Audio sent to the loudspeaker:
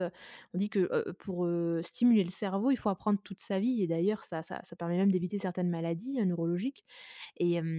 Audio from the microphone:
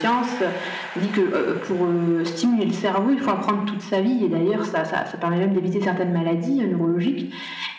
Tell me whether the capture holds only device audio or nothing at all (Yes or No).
Yes